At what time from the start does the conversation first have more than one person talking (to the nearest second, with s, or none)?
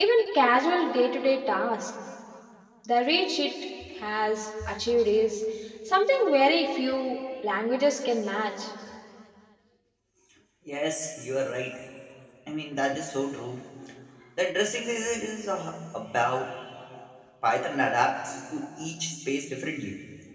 none